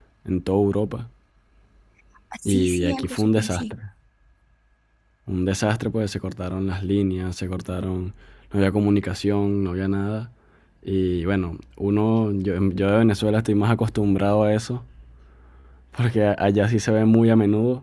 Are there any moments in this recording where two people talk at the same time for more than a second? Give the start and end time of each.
2.5-3.7

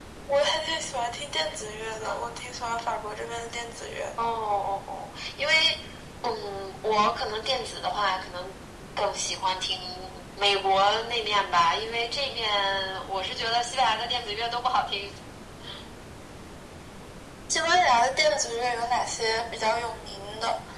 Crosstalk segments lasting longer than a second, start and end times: none

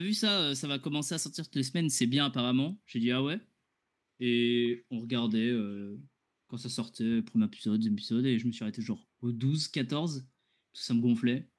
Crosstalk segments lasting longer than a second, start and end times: none

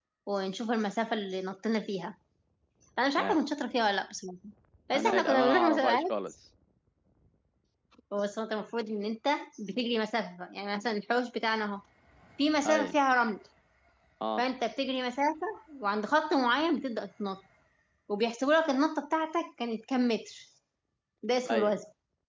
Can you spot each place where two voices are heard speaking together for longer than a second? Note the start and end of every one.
5.0-6.2

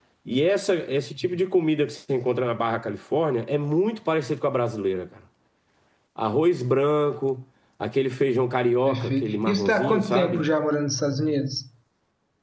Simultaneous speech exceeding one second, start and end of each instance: 8.8-10.4

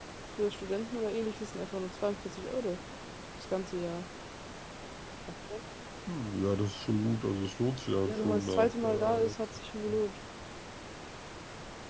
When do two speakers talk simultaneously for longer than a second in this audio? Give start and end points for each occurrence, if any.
8.0-9.4

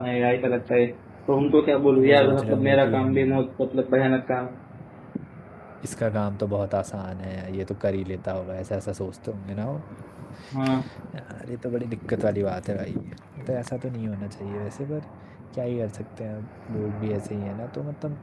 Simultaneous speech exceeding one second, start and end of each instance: 1.9-3.4

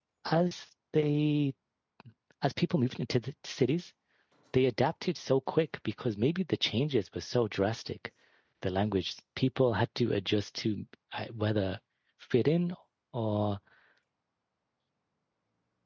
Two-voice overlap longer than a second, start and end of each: none

